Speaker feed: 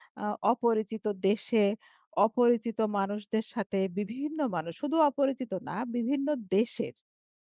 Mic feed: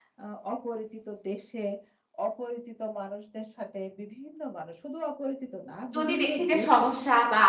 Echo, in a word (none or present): present